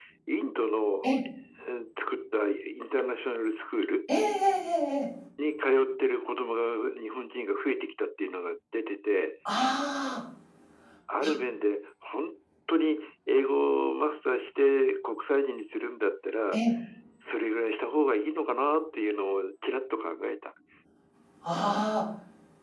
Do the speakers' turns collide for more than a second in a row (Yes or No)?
No